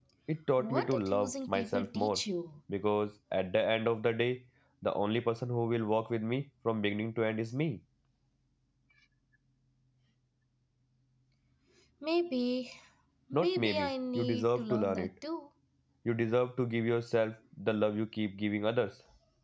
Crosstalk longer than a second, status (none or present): present